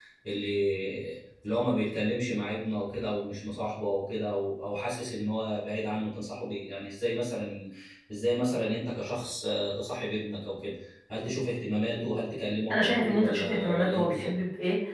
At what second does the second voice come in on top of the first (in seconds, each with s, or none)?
12.7 s